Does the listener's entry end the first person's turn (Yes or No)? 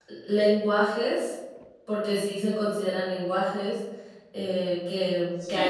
Yes